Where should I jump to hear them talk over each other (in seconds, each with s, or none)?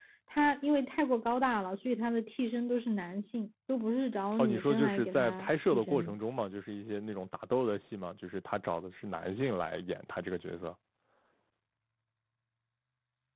4.3 s